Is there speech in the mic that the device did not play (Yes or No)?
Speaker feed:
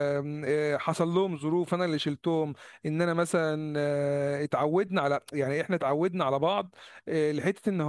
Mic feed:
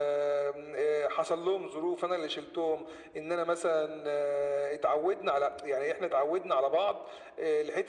No